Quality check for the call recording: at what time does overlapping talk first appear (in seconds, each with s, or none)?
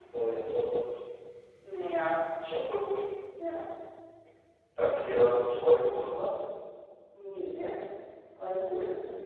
none